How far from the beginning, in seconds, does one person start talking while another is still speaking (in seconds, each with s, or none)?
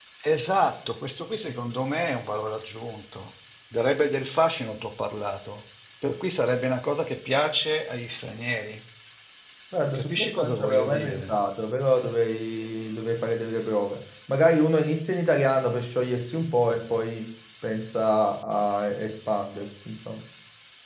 9.9 s